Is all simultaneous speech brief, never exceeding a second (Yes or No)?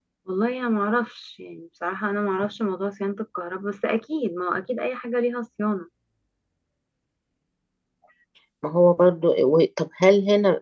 Yes